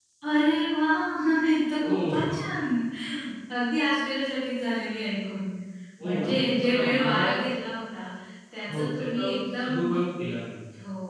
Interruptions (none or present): present